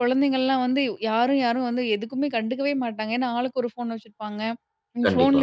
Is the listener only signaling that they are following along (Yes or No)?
Yes